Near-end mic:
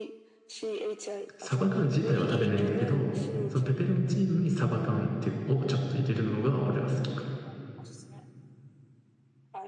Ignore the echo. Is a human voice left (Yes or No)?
Yes